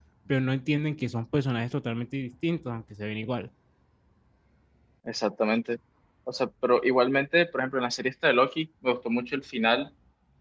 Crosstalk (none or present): none